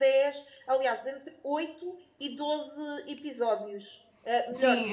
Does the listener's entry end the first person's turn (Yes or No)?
Yes